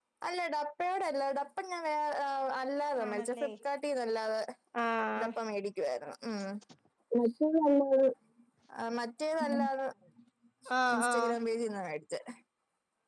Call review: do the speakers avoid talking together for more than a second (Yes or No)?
Yes